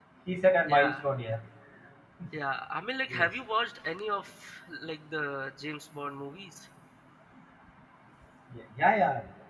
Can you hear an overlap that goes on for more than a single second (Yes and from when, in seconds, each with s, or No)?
No